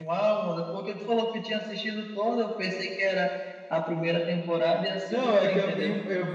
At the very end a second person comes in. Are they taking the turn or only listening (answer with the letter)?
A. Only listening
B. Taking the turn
B